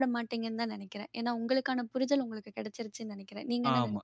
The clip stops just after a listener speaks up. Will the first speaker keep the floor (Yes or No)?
No